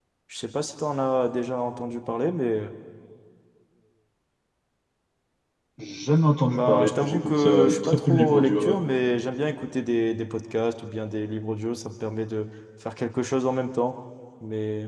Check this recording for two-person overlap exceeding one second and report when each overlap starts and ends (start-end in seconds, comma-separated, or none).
6.5-8.8